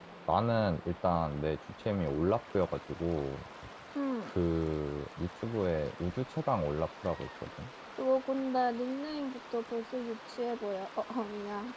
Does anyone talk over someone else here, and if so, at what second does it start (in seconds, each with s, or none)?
none